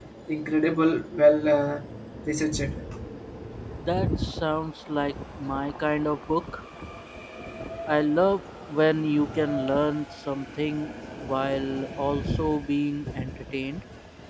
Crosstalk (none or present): none